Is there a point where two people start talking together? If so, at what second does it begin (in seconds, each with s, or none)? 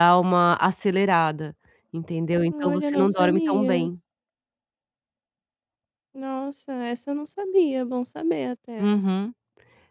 2.5 s